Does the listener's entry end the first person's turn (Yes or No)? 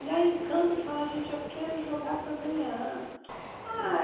No